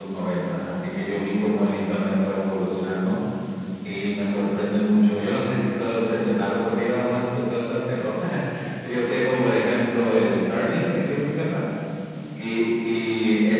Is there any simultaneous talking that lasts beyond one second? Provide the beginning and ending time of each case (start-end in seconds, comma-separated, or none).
none